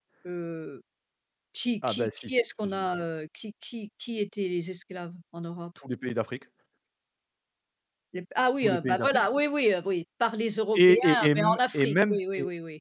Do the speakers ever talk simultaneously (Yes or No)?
Yes